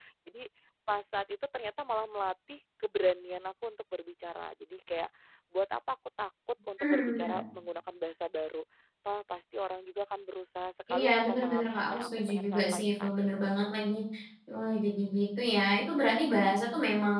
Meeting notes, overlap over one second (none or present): present